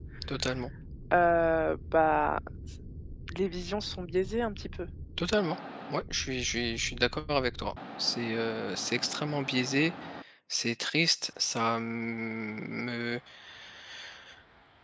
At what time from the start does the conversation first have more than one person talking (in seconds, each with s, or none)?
none